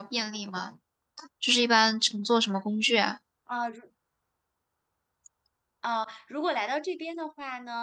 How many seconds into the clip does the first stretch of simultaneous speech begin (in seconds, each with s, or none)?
none